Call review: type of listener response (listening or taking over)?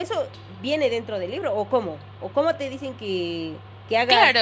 taking over